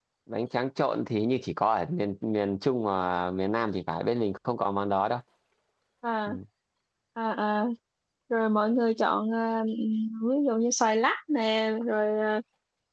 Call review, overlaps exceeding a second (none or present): none